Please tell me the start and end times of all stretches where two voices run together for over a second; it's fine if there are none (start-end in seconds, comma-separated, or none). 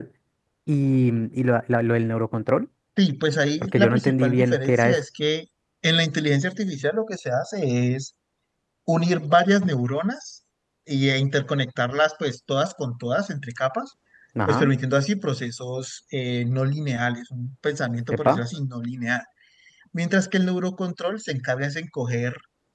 3.6-5.0